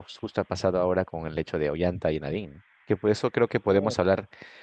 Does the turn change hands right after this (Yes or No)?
No